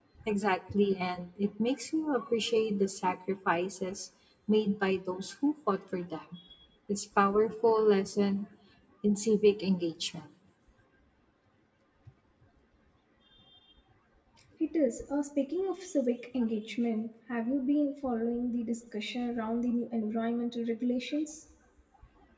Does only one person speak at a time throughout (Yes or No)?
Yes